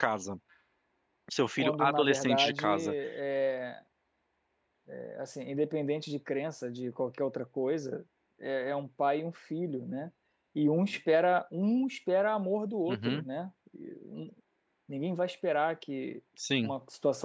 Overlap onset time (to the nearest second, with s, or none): 2 s